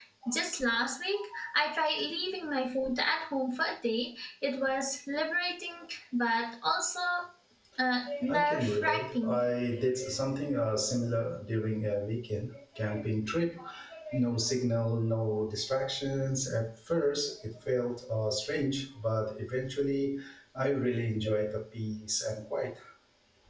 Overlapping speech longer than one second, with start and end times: 8.3-9.5

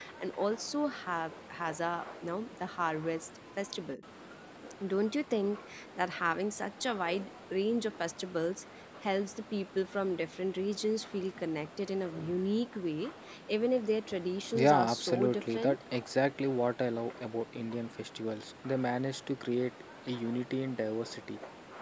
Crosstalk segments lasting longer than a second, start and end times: 14.5-15.8

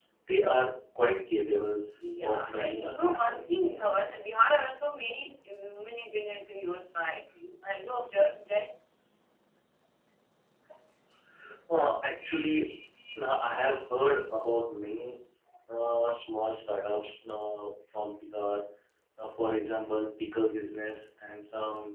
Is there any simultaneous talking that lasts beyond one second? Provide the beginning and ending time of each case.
2.2-3.5

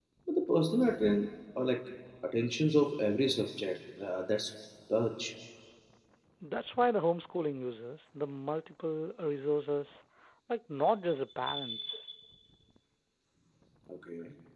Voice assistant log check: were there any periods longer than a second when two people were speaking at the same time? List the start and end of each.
none

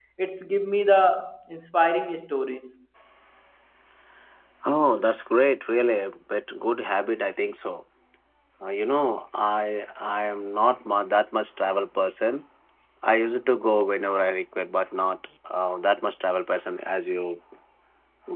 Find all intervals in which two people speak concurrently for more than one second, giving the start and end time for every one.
none

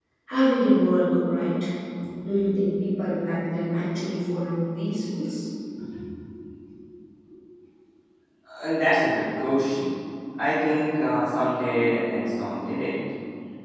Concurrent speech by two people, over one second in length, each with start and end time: none

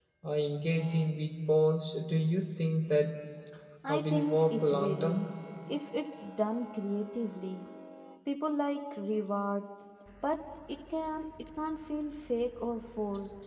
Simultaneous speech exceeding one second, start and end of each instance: 3.9-5.2

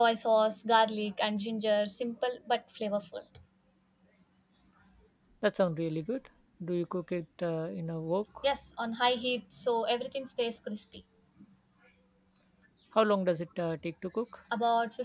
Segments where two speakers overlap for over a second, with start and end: none

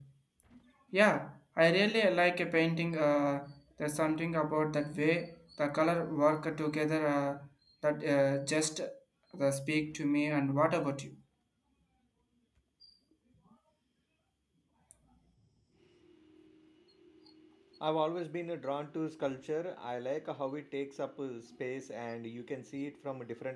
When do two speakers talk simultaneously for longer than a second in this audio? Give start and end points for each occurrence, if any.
none

